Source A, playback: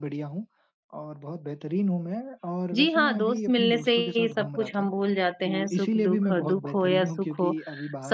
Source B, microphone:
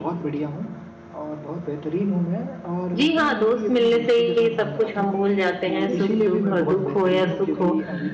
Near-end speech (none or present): present